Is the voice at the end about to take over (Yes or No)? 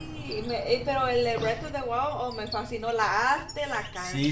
Yes